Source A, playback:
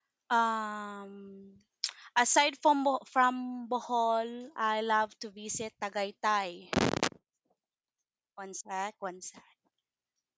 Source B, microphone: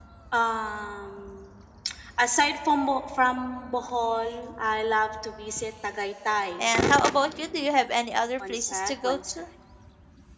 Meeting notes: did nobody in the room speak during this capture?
No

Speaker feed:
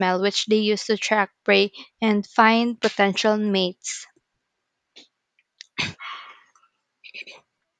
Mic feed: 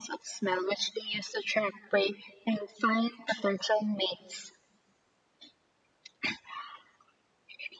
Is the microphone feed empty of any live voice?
Yes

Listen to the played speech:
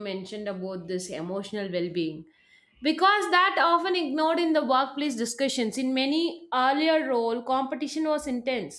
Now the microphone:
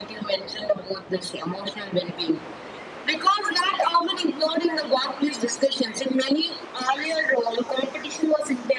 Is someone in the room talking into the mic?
No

